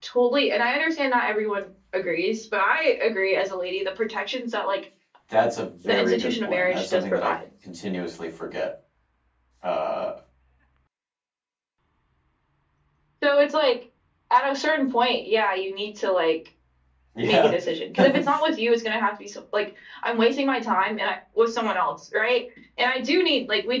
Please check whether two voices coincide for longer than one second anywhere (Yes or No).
Yes